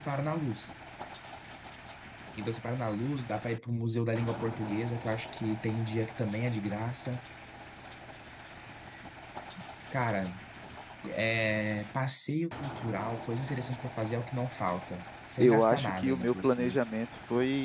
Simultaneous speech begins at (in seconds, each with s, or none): 15.4 s